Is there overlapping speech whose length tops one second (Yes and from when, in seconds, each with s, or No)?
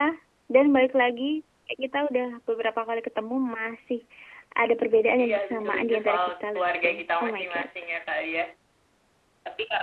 Yes, from 5.2 s